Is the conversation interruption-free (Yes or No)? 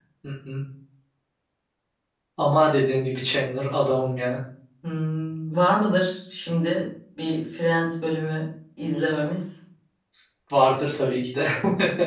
Yes